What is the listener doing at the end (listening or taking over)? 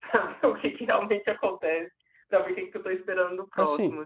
taking over